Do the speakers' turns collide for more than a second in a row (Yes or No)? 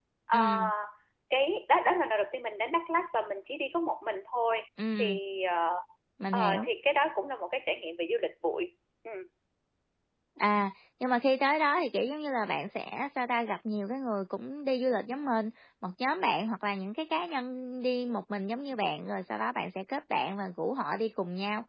No